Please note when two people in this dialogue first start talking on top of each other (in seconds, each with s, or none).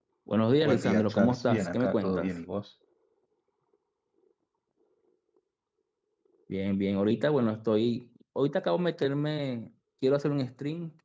0.6 s